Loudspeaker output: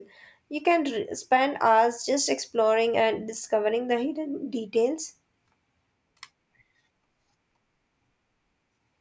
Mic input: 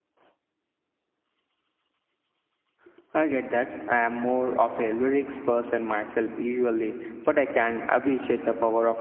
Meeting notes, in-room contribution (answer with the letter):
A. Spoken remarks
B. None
A